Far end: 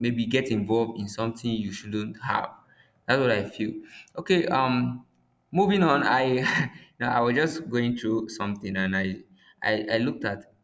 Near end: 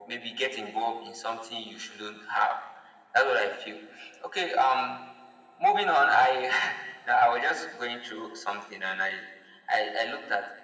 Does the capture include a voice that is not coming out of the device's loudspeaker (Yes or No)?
No